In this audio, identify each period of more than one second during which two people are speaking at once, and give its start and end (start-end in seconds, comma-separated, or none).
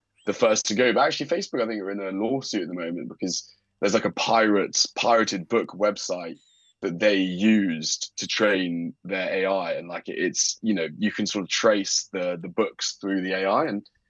none